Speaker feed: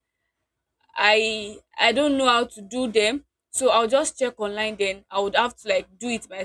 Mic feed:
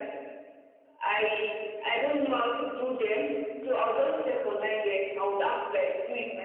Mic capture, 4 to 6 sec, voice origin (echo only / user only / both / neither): echo only